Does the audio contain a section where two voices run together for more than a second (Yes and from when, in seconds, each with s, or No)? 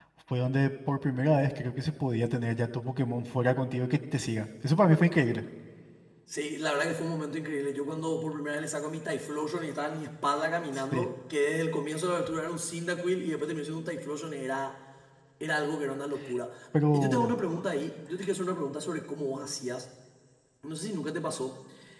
No